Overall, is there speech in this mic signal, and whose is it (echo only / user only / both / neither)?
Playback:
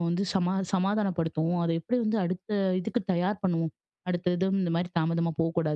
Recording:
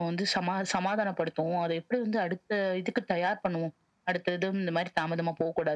echo only